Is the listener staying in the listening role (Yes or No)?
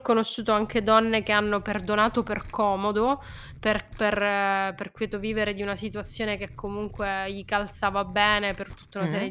Yes